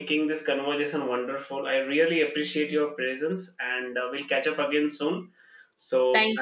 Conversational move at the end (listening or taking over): taking over